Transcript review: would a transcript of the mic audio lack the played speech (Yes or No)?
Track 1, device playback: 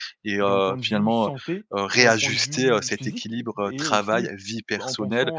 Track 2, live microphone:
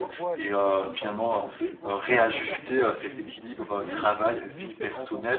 No